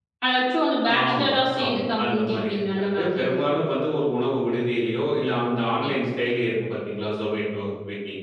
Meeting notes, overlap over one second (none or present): present